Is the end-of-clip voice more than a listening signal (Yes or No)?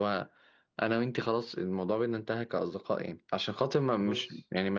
No